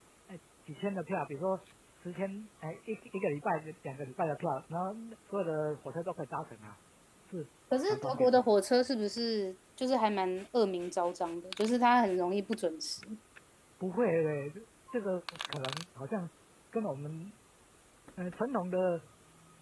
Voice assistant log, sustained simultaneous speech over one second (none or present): none